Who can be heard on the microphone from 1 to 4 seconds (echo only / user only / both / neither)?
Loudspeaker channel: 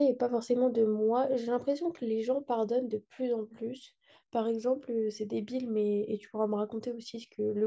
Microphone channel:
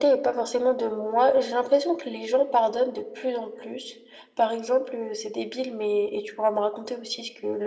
echo only